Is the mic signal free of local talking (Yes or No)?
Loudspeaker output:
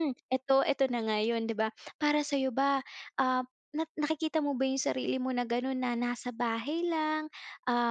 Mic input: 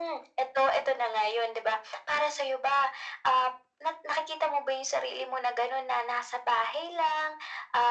Yes